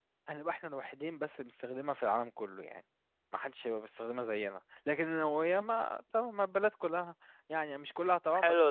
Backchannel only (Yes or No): No